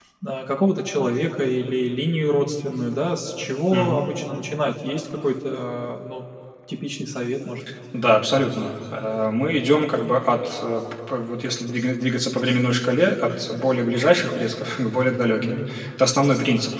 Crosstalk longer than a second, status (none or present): none